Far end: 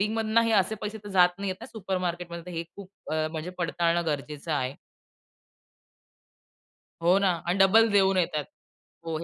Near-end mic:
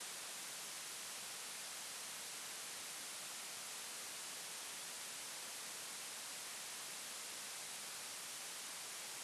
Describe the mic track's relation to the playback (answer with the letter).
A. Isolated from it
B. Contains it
A